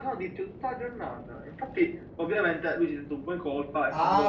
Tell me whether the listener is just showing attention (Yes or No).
No